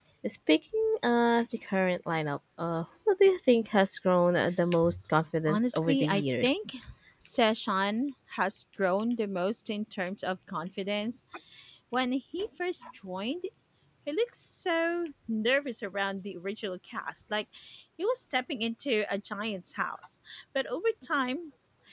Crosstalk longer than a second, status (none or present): present